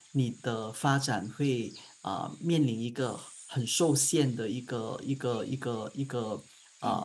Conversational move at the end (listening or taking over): listening